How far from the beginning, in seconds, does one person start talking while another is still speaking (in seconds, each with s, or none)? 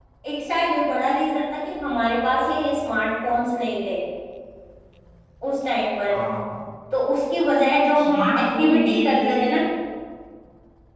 8.0 s